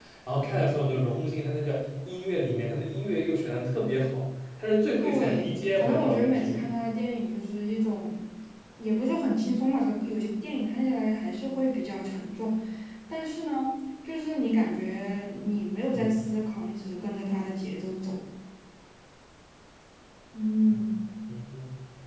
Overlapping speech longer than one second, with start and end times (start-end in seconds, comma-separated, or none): 5.0-6.7